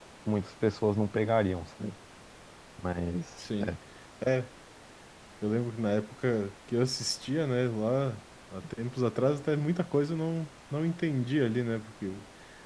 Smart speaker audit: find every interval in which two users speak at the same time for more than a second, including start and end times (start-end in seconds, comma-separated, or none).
none